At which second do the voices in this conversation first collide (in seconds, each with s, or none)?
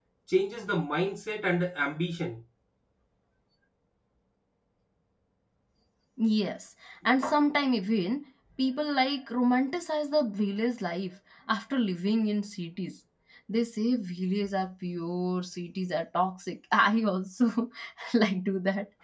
none